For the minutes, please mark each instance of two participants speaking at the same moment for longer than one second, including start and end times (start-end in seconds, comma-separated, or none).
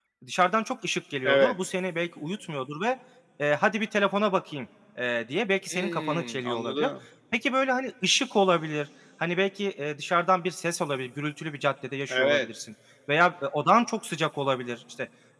5.7-6.9